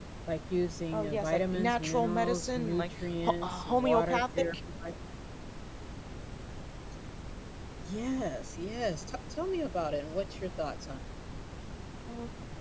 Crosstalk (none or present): present